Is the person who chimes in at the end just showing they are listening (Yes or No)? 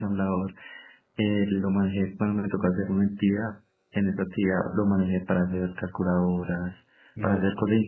Yes